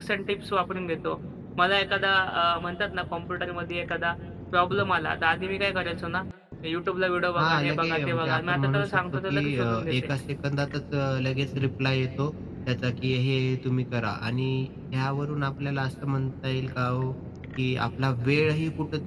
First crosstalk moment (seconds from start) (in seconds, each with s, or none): 7.4 s